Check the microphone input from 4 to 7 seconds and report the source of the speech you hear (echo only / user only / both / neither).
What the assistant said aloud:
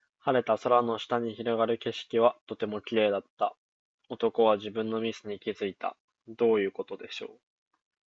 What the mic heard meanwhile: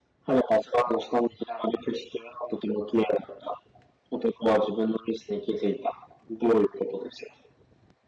echo only